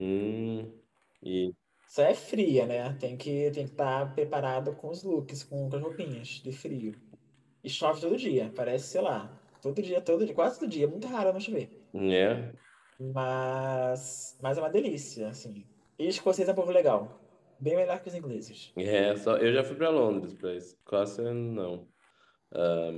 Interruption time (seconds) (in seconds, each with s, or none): none